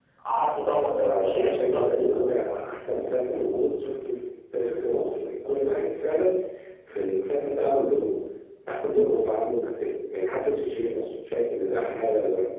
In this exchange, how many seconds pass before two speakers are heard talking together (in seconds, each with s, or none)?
0.7 s